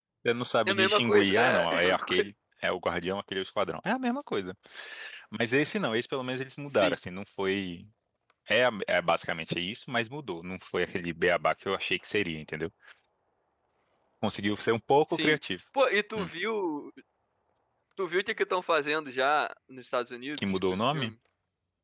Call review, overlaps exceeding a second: present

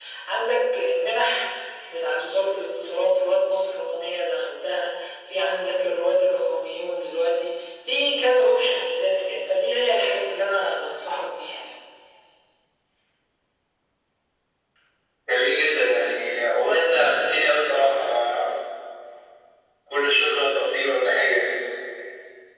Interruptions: none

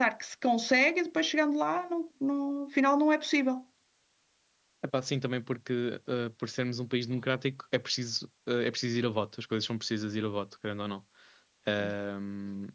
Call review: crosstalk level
none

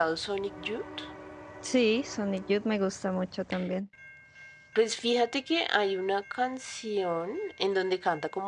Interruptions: none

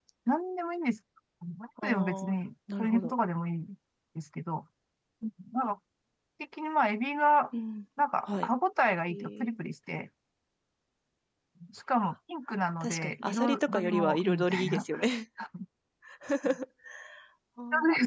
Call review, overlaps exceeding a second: present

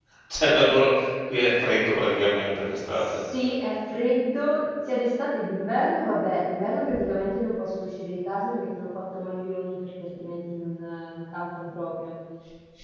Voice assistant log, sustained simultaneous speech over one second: none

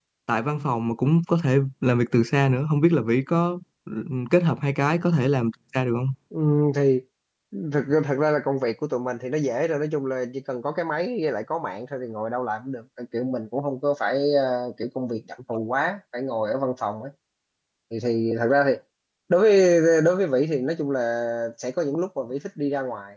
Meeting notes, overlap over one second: none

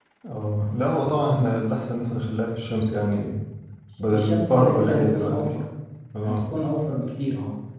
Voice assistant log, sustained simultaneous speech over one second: present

